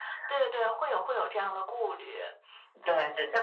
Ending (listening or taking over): taking over